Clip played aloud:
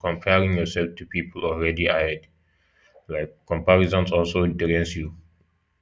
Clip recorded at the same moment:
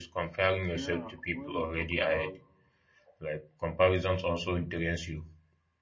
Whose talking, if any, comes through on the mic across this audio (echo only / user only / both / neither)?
both